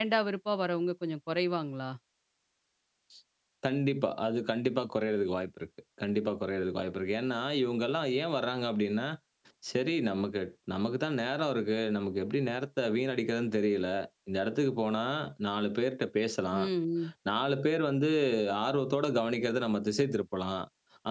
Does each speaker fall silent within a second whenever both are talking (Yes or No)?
Yes